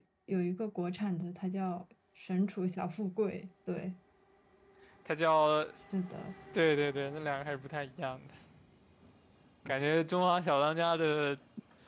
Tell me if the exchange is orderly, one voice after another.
Yes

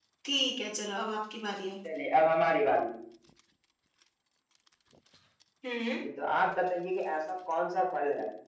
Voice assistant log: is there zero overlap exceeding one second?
Yes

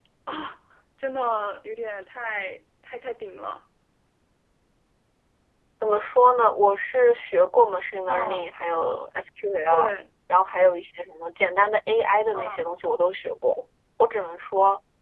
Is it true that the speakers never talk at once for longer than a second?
Yes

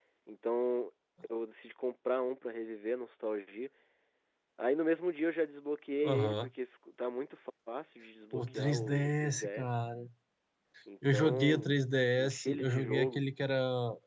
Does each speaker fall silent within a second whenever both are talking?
No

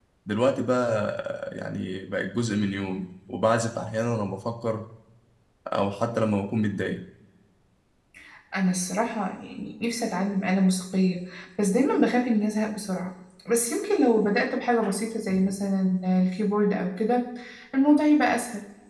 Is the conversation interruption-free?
Yes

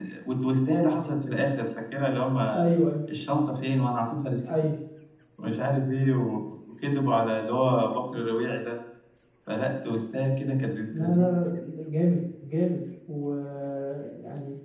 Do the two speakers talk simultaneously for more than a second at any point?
No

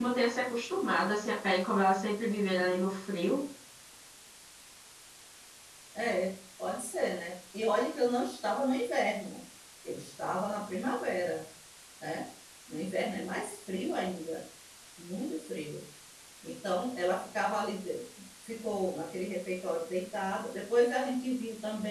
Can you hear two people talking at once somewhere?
No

